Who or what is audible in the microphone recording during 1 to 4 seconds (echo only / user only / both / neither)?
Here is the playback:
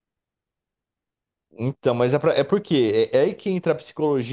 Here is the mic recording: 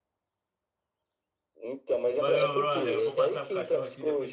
both